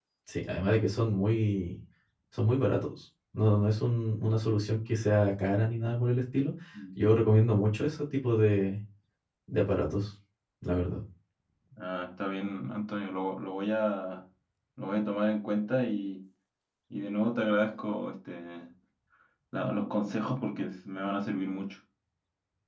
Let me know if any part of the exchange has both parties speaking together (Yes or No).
No